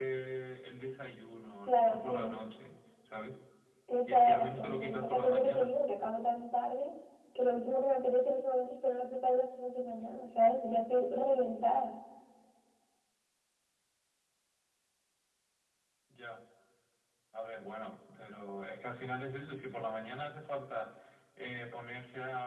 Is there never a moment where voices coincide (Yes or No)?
No